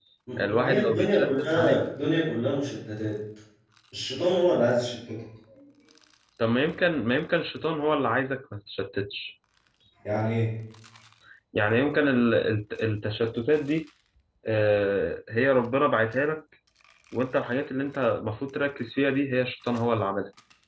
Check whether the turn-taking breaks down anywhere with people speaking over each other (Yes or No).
Yes